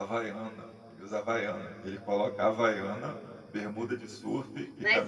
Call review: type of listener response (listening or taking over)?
taking over